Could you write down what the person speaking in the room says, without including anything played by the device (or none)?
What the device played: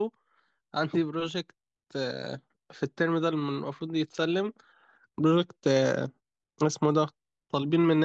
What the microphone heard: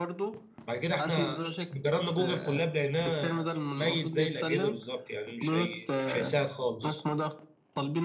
بعد كده احنا جربنا جوجل كولاب لقيناه ميت زي الاجهزه بالظبط يعني مش هي... مش هيساعد خالص